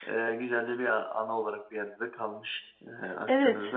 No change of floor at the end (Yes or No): No